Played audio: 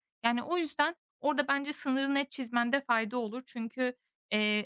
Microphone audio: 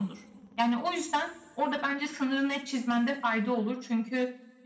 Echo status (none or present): present